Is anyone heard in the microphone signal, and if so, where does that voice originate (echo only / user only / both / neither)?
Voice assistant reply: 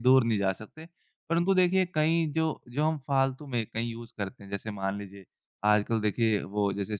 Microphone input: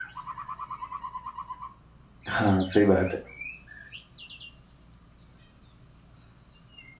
user only